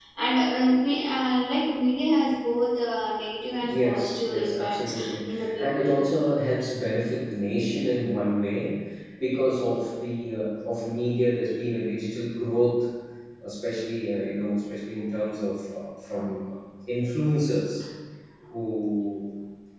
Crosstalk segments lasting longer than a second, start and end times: 3.6-5.9

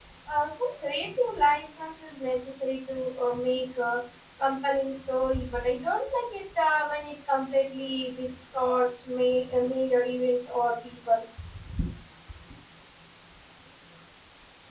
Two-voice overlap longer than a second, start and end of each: none

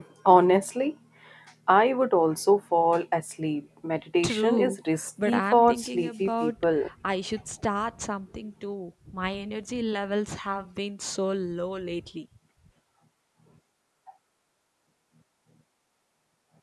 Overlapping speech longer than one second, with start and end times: 5.3-6.6

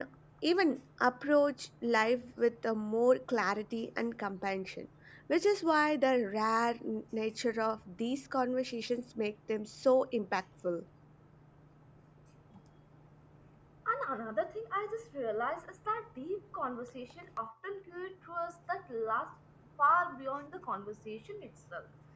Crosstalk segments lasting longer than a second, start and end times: none

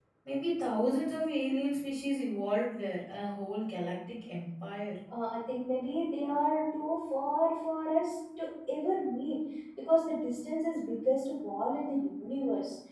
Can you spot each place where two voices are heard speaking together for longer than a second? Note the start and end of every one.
none

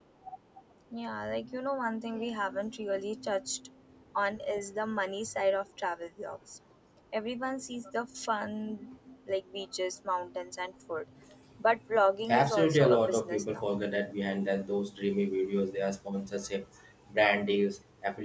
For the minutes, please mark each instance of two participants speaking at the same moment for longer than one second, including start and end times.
12.3-13.7

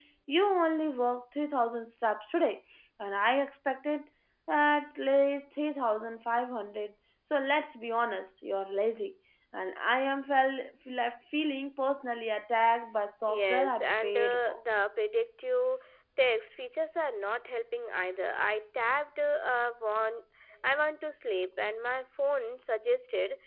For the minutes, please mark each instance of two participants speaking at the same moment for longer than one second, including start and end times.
13.3-14.6

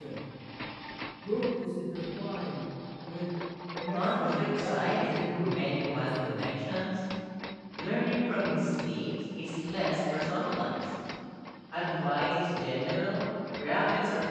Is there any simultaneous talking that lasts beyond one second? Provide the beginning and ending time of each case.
3.9-6.7

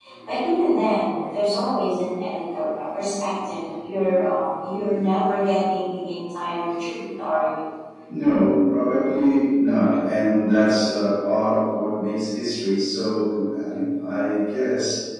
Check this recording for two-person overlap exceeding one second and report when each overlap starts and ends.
none

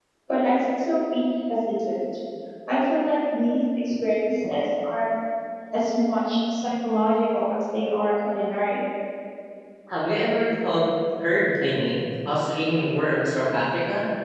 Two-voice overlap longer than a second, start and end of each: none

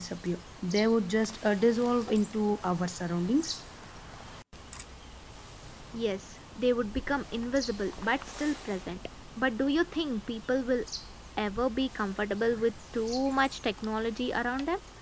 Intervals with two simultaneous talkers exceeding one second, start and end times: none

